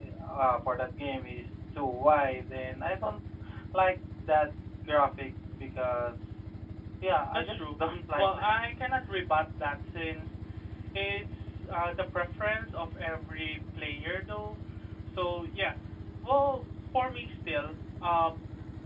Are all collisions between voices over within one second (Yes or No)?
Yes